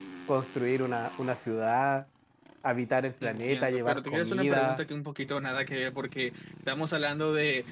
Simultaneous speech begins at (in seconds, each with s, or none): 3.2 s